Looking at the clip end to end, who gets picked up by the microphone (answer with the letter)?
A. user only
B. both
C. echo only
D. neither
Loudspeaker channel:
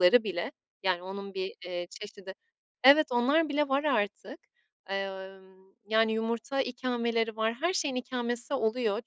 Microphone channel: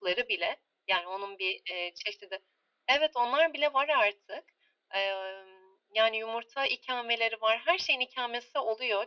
C